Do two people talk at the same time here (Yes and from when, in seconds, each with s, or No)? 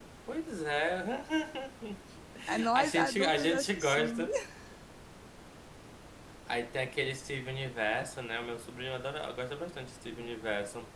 Yes, from 2.8 s